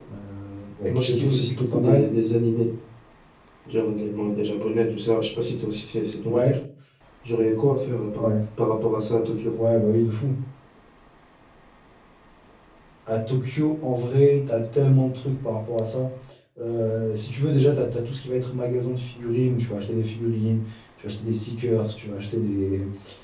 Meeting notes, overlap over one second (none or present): present